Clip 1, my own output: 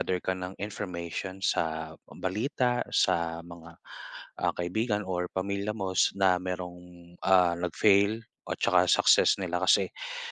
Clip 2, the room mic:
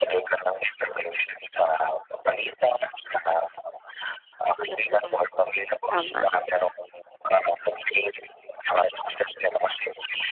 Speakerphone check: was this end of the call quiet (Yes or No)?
No